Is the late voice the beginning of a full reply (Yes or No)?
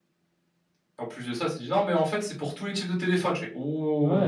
Yes